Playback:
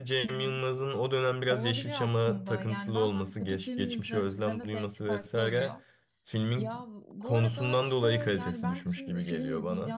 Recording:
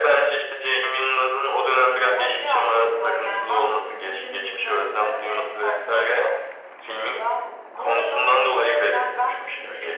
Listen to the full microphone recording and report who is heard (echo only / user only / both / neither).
echo only